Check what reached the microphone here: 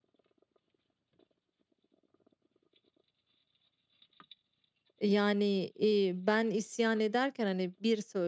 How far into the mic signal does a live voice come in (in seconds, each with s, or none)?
5.0 s